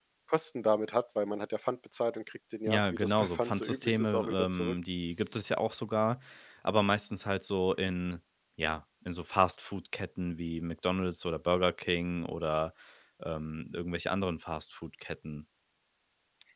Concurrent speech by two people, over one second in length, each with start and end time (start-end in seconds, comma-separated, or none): 2.7-4.8